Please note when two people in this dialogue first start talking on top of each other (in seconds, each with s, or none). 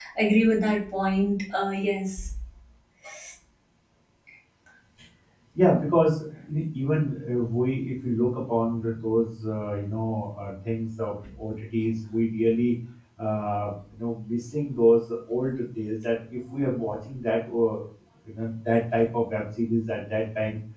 none